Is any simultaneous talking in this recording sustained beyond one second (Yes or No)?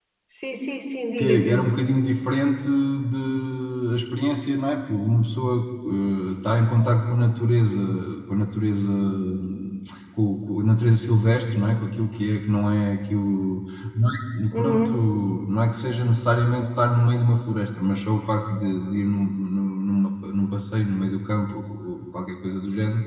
No